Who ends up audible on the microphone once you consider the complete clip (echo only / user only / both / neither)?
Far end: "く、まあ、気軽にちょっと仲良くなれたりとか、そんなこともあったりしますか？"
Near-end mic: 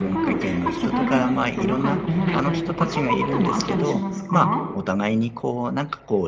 both